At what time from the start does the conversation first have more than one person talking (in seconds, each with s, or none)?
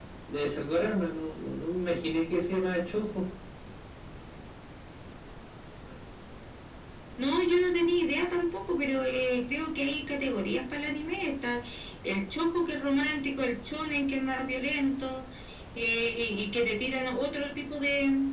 none